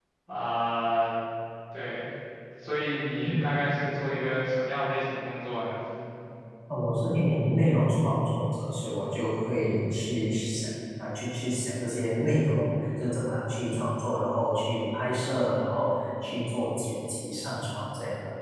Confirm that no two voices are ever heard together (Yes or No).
Yes